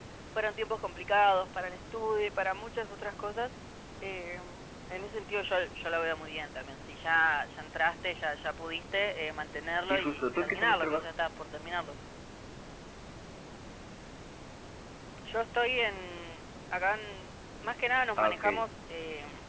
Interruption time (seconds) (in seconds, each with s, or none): 9.8 s